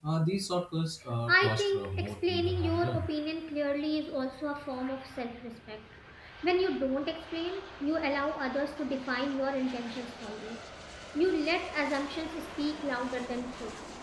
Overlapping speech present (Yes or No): Yes